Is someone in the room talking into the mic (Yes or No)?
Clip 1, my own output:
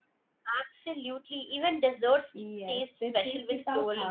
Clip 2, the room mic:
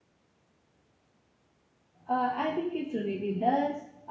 Yes